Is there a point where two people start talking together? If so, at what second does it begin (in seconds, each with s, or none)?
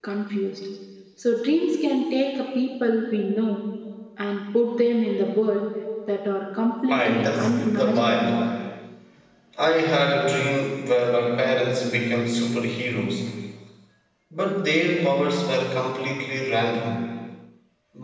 6.9 s